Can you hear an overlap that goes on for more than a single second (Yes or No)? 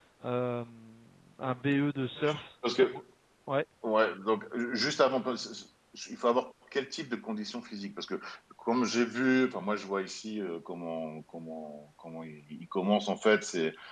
No